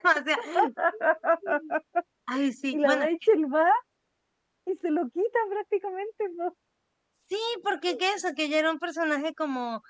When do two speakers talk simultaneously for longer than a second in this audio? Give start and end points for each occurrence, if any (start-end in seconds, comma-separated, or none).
none